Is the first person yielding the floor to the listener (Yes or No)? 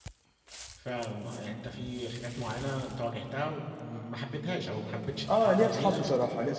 Yes